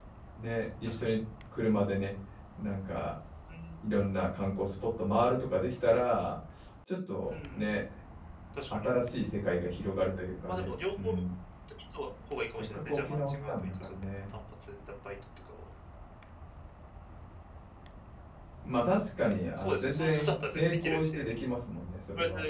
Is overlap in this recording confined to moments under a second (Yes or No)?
No